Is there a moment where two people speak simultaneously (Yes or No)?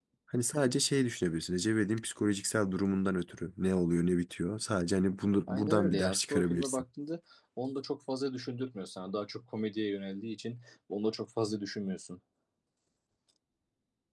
Yes